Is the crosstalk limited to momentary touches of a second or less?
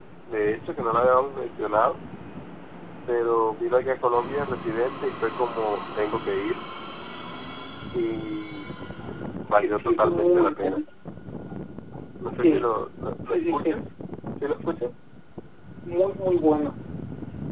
No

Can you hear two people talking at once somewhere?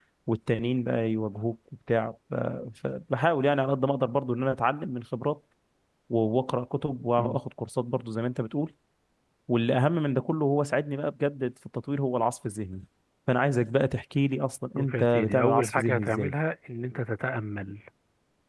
Yes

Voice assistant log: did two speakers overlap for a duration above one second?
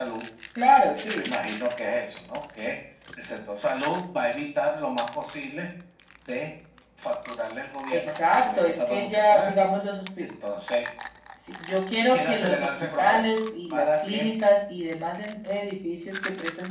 Yes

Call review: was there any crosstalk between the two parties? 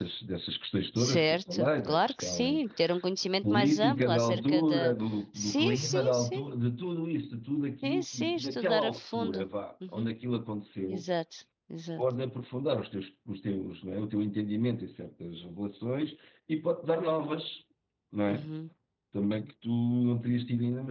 Yes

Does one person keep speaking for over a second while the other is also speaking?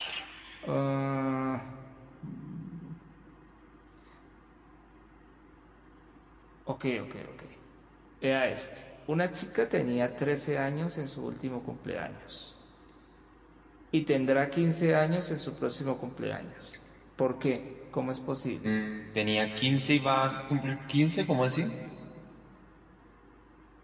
No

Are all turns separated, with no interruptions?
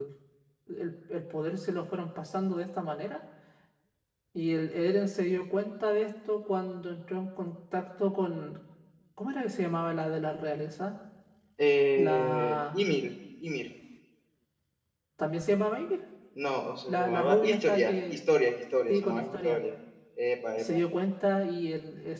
No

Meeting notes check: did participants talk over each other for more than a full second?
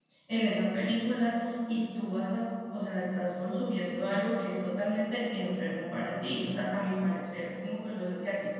No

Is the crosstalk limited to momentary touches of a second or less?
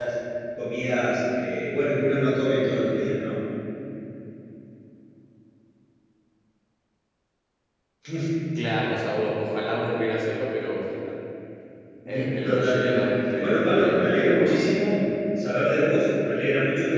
No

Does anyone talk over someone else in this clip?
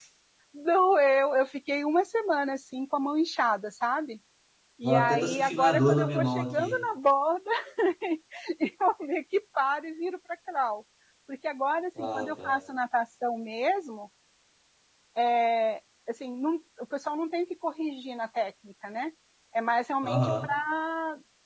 Yes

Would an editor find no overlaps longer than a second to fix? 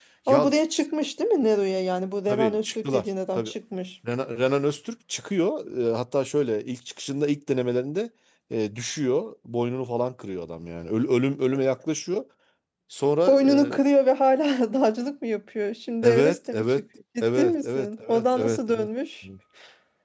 No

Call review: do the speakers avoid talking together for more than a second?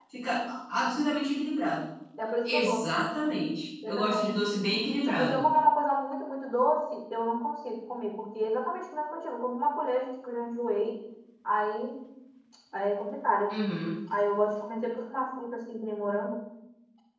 Yes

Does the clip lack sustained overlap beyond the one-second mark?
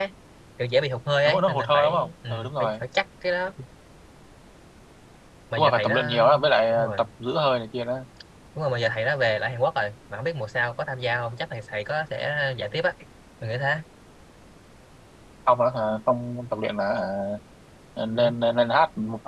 No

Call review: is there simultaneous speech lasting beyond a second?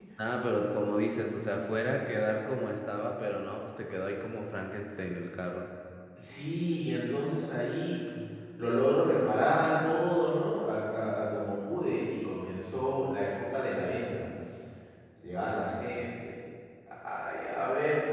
No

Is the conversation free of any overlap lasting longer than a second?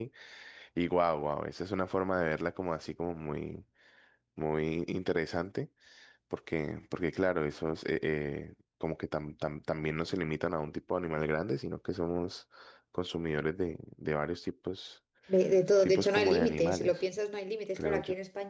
No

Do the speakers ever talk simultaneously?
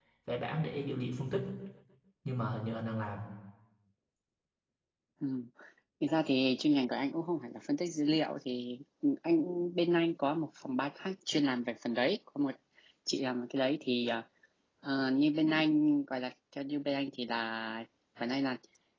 No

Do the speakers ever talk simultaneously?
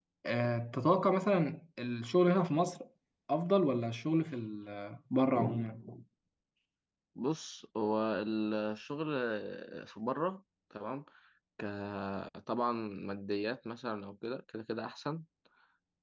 No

